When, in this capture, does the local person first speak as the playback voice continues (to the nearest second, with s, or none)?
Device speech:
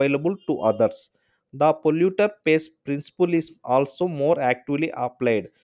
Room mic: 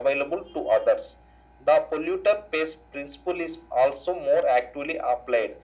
none